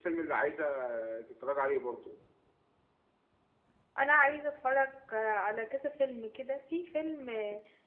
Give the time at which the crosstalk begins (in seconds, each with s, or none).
none